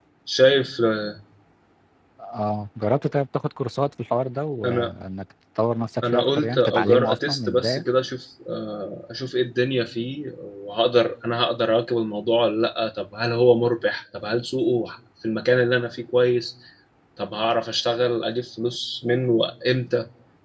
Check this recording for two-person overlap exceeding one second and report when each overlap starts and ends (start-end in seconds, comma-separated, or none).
6.0-7.8